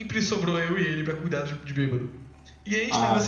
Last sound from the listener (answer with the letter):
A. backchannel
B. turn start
A